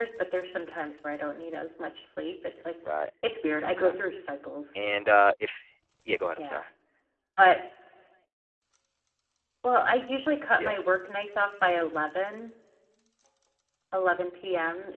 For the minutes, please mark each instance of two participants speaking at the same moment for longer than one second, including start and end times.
none

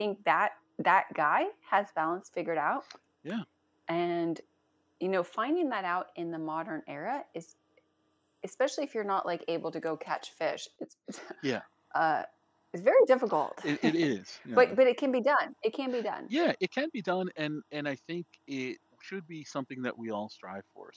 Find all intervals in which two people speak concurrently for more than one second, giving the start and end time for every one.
none

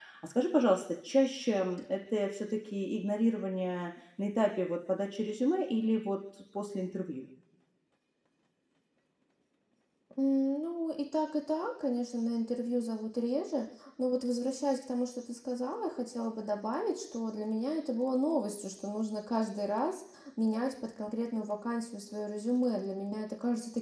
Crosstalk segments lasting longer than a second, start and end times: none

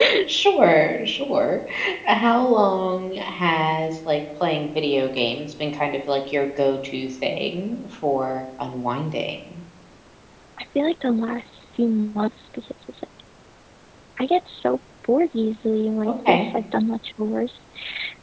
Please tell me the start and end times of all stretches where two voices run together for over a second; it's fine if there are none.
none

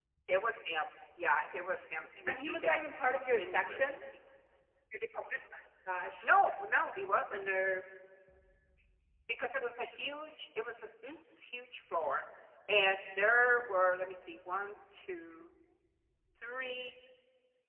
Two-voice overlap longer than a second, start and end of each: 2.3-4.0

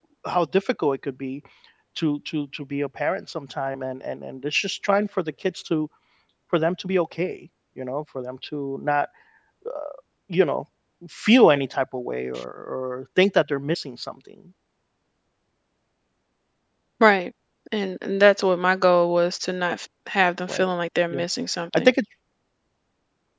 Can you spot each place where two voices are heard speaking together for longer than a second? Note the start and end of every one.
none

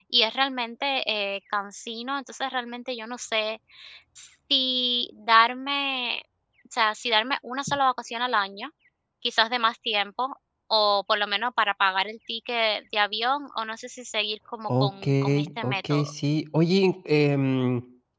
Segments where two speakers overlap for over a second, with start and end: 14.7-16.1

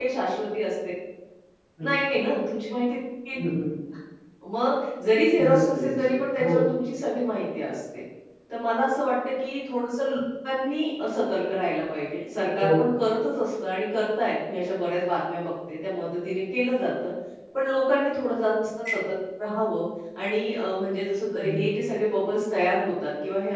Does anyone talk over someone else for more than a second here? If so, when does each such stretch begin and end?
5.5-6.7

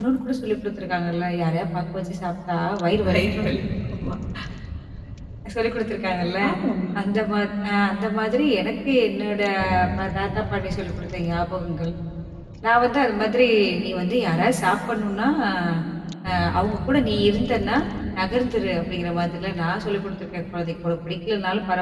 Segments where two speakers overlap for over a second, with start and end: none

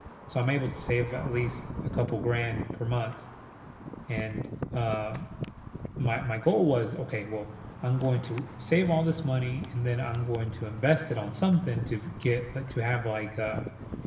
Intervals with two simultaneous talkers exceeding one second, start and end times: none

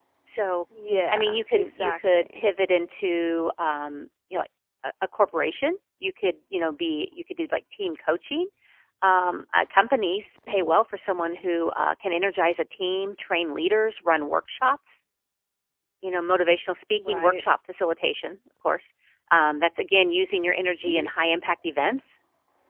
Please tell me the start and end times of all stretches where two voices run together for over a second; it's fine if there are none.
1.1-2.4

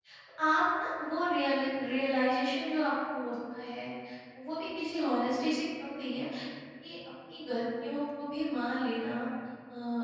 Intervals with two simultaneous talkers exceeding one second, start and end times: none

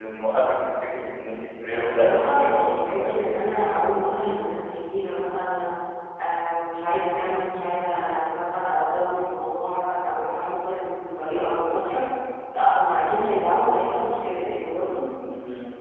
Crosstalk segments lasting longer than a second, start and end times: 1.7-3.2

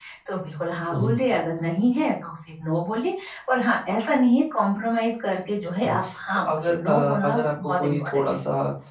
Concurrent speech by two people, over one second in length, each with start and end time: 6.3-8.4

